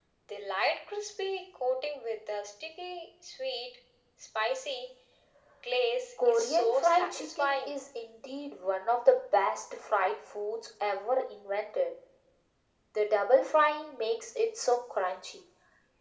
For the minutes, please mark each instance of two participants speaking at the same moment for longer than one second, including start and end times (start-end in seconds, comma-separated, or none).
6.2-7.8